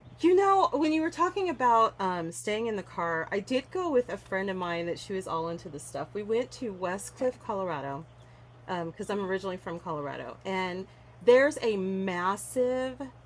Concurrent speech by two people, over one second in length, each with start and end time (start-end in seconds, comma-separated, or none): none